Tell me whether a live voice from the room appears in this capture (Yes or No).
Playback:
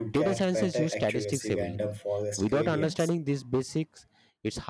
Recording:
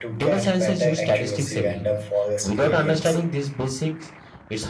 No